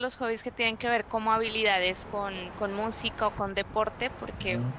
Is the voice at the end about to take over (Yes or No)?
No